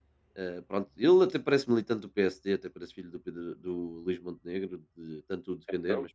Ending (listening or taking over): listening